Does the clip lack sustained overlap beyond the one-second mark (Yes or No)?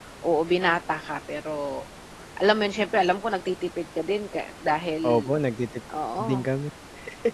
Yes